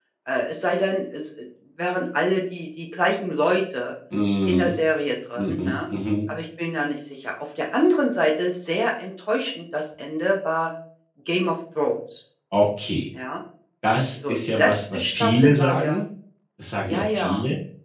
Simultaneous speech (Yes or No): Yes